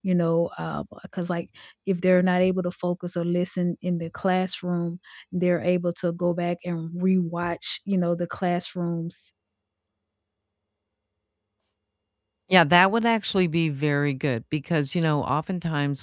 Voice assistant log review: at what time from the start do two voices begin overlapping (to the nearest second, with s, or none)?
none